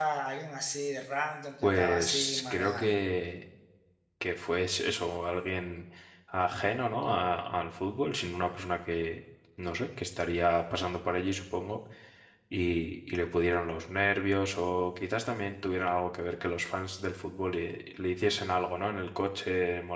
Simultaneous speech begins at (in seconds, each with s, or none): 1.6 s